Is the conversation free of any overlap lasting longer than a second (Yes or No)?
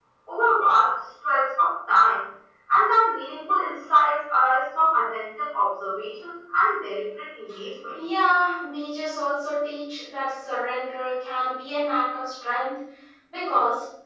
Yes